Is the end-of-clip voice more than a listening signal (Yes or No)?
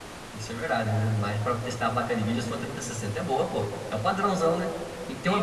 Yes